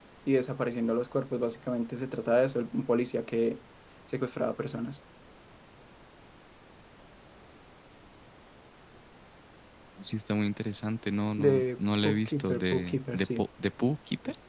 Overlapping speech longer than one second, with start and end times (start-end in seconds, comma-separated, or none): 11.4-13.4